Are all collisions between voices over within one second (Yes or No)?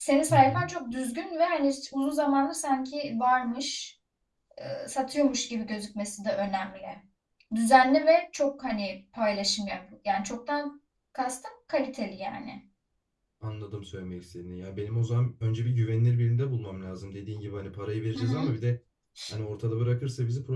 Yes